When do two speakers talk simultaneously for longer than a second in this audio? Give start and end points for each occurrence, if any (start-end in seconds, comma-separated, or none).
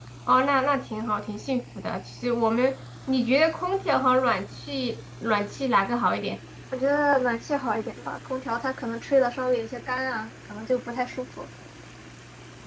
none